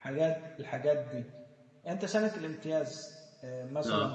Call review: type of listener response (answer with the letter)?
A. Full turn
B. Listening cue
B